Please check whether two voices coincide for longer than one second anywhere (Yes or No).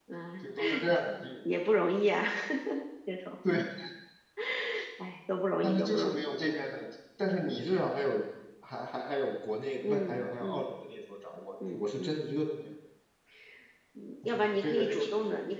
Yes